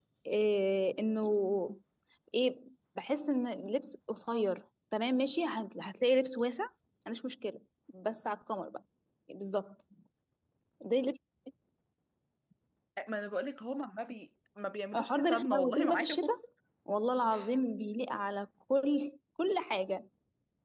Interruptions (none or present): present